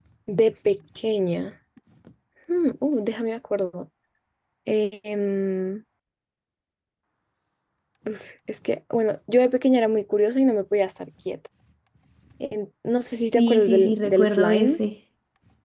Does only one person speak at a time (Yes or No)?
No